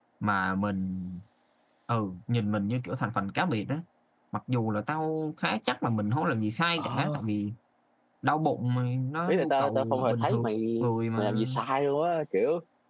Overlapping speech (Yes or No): Yes